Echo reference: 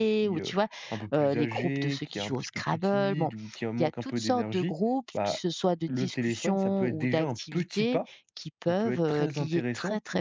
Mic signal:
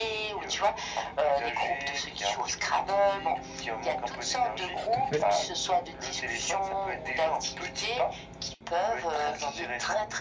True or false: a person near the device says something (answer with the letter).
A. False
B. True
B